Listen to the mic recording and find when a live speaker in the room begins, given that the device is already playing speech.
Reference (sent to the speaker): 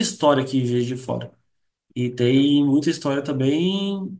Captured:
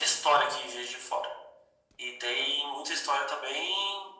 none

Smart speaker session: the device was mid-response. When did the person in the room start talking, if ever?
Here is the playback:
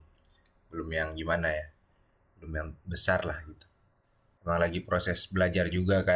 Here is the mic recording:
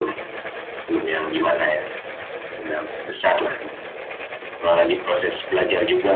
none

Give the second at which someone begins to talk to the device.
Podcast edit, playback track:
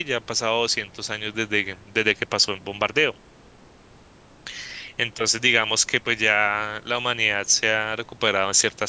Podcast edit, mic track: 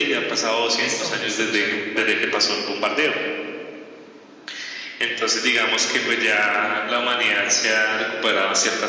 1 s

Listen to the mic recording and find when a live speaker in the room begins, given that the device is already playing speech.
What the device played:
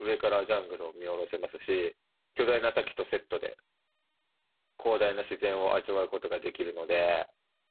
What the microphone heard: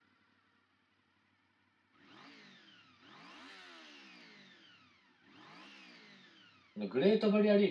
7 s

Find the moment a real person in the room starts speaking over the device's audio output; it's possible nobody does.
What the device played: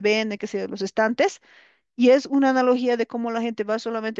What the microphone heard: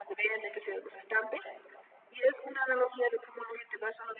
none

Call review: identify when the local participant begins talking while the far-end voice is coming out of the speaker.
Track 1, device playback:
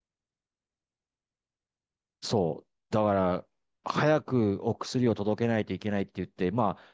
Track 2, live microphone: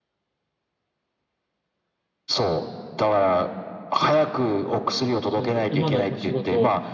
5 s

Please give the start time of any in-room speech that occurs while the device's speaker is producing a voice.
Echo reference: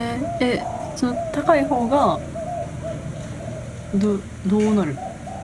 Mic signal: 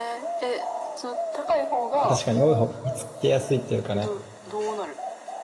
2 s

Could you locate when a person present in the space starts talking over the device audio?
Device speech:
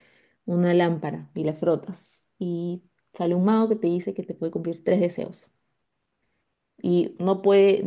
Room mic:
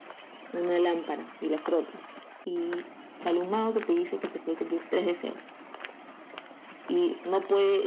none

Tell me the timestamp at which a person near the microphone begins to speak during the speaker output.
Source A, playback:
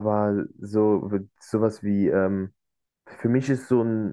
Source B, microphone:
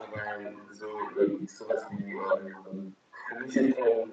none

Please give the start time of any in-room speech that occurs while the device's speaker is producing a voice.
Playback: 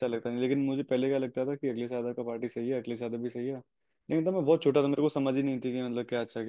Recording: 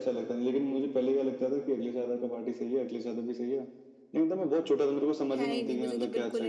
5 s

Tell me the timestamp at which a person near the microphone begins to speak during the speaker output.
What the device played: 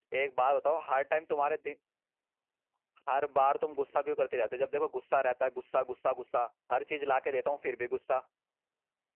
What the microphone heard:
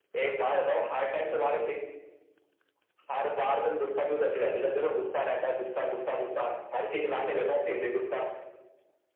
none

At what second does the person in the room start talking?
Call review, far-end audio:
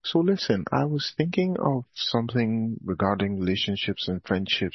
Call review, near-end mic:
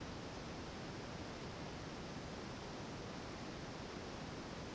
none

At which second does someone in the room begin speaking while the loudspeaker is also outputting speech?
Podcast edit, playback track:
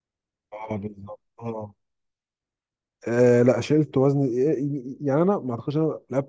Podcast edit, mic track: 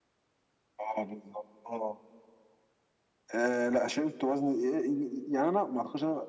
none

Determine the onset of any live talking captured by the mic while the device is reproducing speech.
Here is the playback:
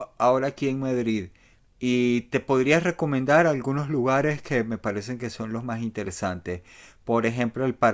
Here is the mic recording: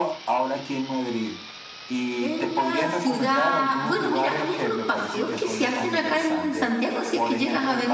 2 s

